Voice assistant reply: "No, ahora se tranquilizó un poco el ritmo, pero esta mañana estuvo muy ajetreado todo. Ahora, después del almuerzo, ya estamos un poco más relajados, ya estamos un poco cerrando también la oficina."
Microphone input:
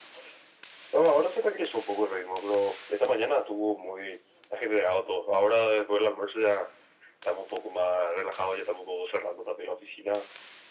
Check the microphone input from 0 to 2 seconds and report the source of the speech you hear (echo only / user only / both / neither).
echo only